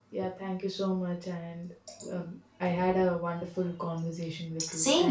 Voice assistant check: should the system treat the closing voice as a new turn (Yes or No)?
Yes